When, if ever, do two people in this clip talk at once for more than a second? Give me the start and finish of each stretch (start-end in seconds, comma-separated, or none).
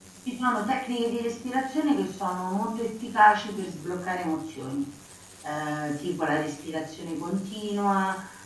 none